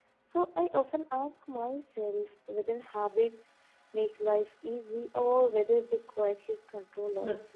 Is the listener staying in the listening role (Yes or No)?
No